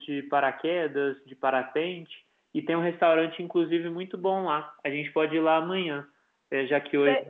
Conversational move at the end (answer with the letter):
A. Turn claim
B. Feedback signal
B